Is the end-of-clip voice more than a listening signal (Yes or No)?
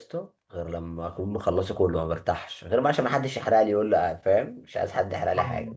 Yes